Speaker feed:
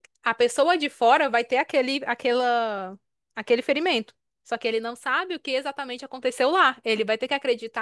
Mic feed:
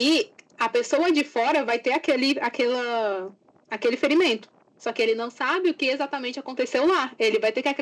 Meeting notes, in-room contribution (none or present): none